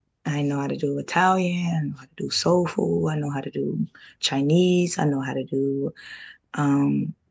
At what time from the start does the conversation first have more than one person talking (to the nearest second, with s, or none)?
none